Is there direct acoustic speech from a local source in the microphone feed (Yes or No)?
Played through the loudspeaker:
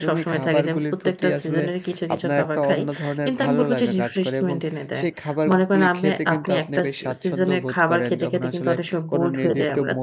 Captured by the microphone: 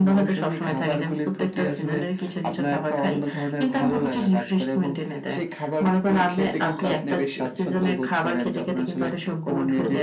No